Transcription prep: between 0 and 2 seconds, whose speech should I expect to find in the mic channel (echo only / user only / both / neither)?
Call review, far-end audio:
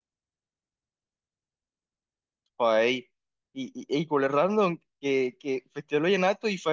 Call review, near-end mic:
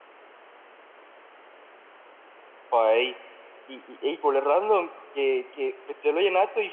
neither